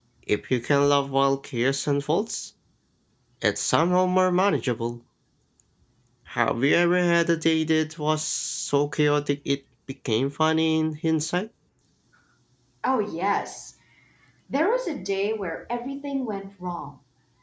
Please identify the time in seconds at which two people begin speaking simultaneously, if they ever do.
none

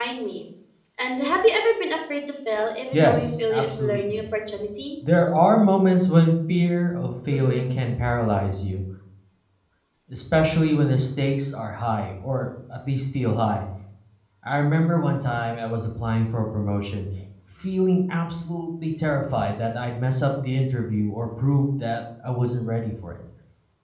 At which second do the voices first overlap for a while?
2.9 s

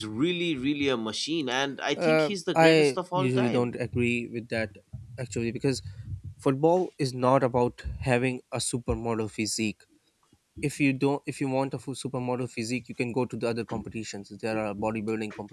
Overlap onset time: 2.0 s

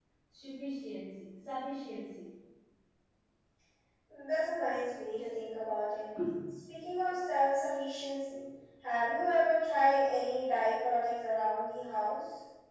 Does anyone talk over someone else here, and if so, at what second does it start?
none

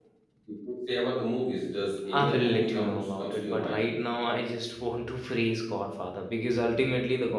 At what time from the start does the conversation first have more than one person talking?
2.1 s

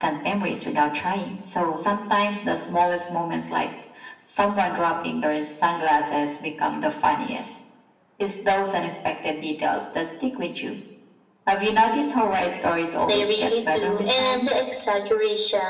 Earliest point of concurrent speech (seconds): 13.1 s

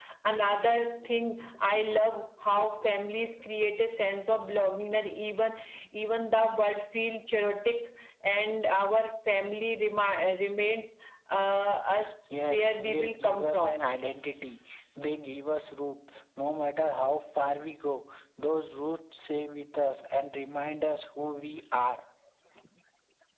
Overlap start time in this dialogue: 12.4 s

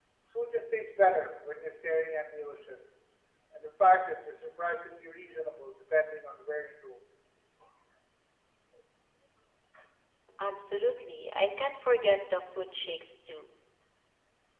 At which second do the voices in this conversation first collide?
none

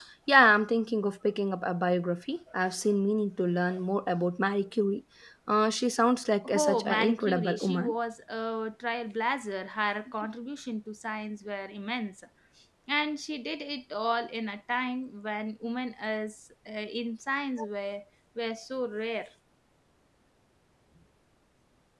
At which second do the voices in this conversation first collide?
6.4 s

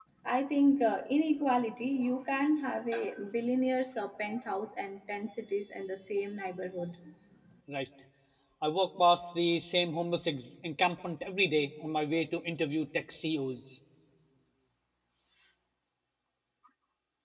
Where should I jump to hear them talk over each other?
none

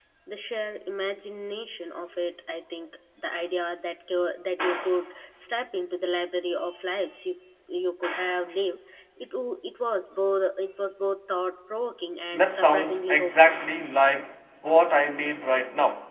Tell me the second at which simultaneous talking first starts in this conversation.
12.3 s

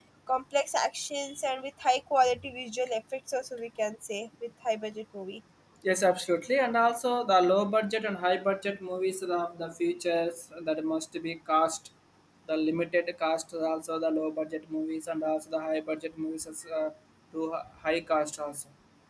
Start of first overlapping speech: none

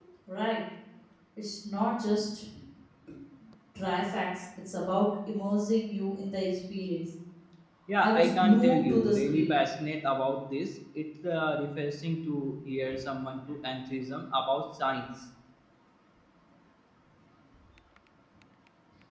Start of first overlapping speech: 8.0 s

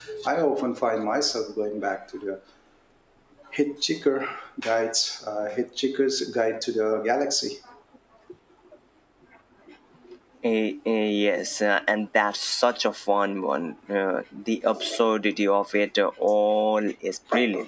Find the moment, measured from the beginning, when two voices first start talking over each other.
none

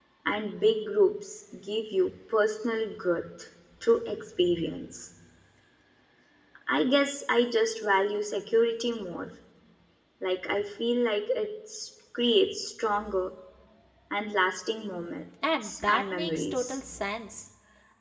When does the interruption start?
15.4 s

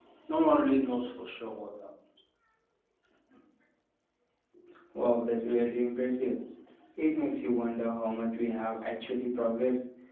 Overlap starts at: none

